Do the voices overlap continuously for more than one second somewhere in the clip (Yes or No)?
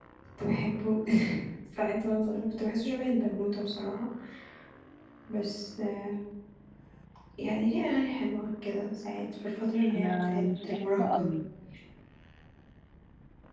Yes